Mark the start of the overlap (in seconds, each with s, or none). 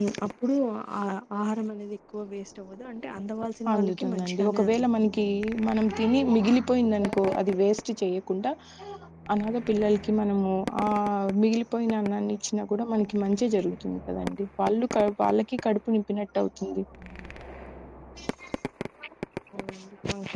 3.7 s